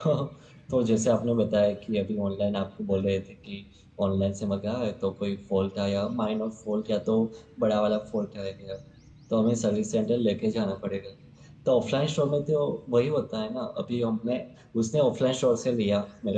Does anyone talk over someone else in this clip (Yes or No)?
No